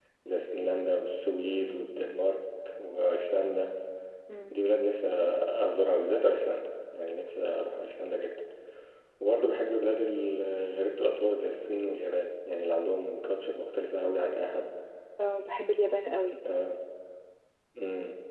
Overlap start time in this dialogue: none

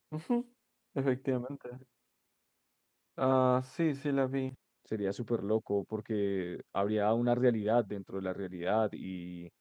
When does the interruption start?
none

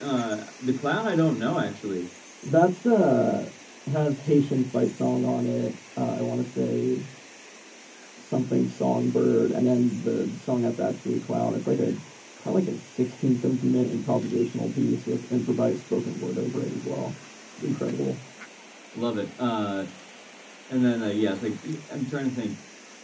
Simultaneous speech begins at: none

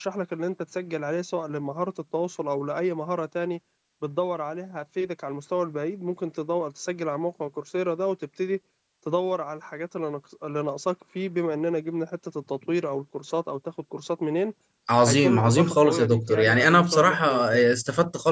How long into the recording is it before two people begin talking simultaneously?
15.1 s

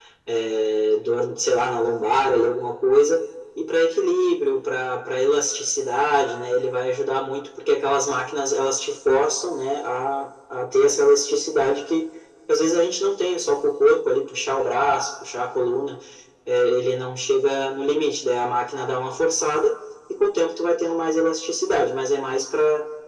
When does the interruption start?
none

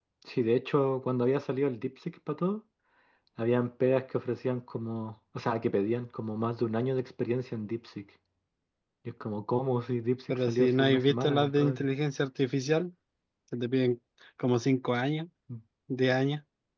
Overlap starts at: 10.3 s

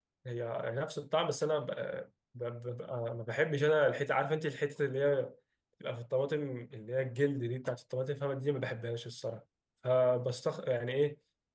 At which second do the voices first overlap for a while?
none

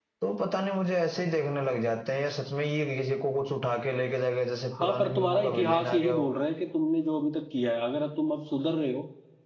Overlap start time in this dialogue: 4.8 s

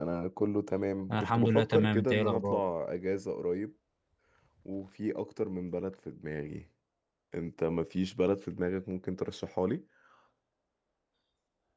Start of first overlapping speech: 1.2 s

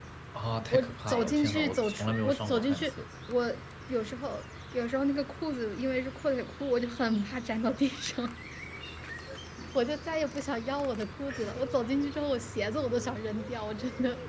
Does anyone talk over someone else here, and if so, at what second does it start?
0.7 s

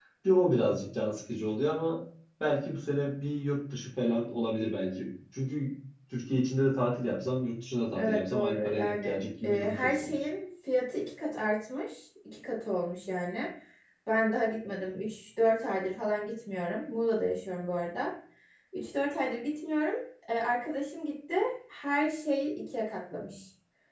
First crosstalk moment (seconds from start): 7.9 s

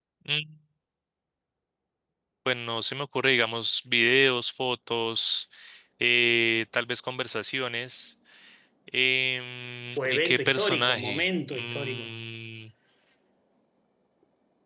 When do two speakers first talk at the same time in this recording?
10.0 s

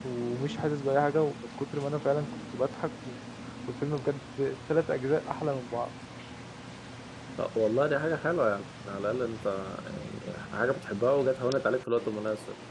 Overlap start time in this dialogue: none

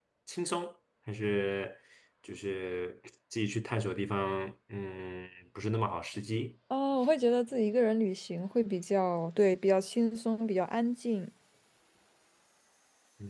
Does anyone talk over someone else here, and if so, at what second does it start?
none

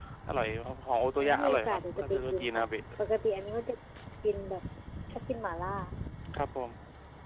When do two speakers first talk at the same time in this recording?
1.2 s

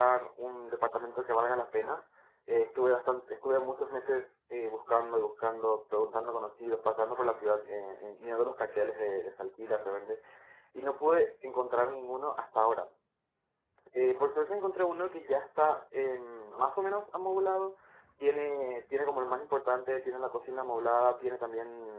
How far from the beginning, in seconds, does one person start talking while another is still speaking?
none

